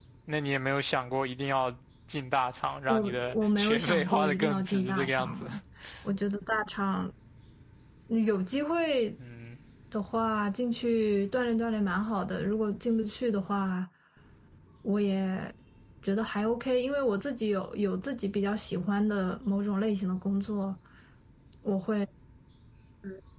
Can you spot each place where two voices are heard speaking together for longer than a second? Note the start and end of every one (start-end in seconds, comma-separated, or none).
2.9-5.5